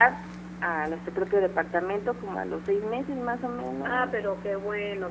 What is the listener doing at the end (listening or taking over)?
taking over